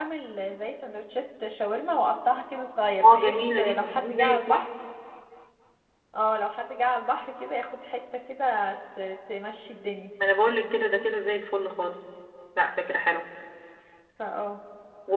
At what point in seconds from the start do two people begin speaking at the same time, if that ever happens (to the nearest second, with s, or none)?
3 s